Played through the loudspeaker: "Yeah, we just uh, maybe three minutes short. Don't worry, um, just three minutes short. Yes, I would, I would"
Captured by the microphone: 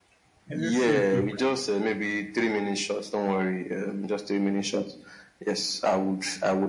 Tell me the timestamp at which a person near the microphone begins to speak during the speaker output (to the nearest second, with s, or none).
0 s